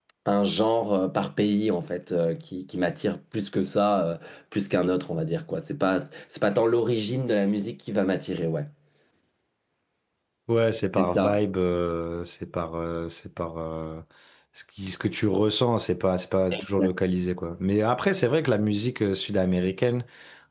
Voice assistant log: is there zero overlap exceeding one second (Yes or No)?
Yes